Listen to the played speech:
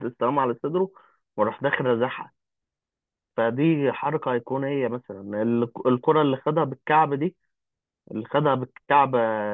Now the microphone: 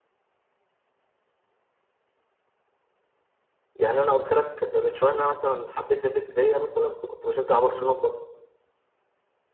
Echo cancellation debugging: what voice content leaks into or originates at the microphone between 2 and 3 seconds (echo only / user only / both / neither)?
neither